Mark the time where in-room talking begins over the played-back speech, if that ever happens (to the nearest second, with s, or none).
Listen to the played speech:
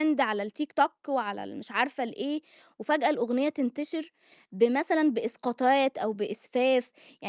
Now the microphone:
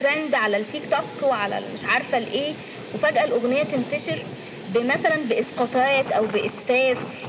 none